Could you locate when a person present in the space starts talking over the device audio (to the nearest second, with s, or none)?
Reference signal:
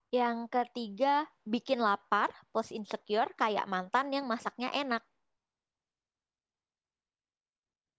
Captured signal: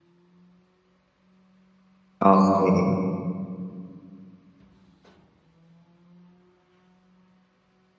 2 s